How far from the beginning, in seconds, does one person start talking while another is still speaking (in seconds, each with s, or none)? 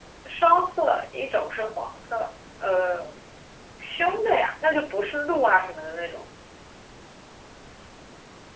none